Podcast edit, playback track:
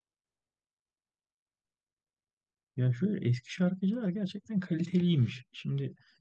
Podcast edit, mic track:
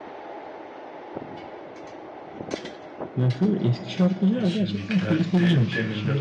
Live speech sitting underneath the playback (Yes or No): Yes